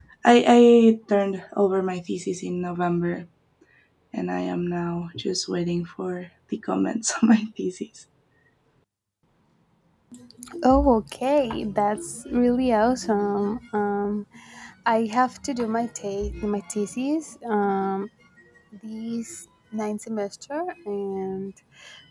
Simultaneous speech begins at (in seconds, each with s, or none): none